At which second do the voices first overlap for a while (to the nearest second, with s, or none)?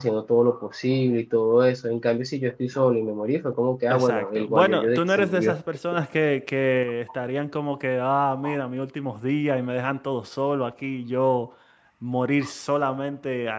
4 s